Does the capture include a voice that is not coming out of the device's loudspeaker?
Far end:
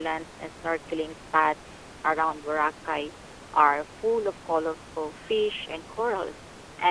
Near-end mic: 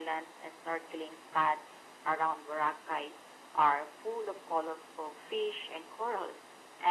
No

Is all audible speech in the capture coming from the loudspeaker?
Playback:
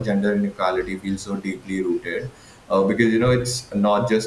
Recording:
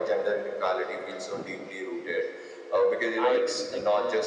No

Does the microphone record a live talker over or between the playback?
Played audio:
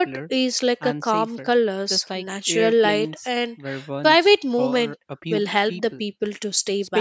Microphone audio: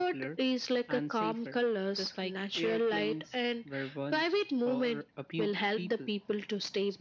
No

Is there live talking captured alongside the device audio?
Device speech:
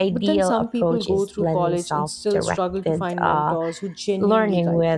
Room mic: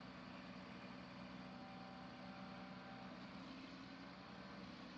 No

